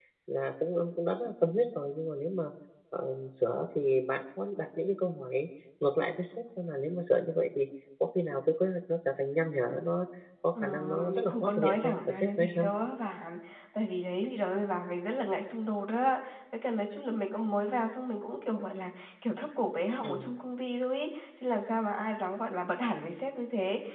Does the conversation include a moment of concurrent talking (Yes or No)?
Yes